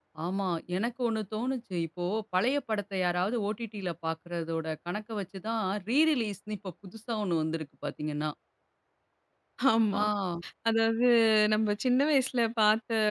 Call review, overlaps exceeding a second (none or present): none